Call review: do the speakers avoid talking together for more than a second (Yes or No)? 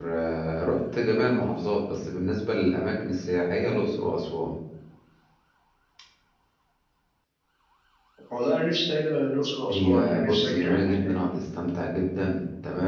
No